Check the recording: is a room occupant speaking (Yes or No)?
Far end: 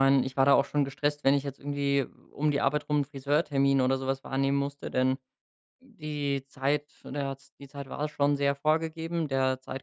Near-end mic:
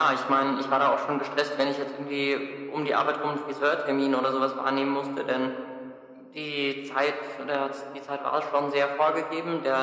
No